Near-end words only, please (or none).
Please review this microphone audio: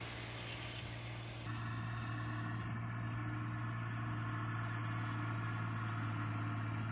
none